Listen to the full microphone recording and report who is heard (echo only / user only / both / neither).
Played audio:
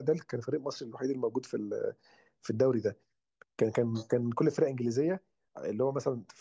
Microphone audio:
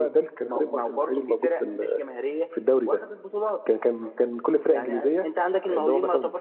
both